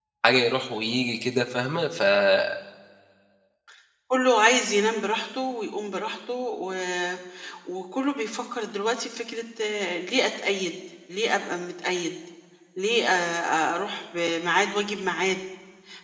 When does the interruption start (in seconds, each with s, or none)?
none